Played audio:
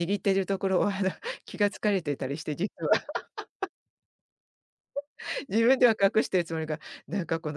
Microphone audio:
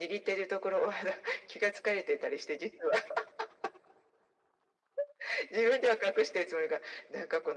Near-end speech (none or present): none